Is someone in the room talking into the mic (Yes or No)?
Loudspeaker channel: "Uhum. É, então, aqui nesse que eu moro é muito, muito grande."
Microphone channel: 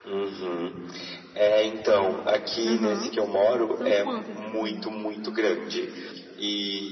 Yes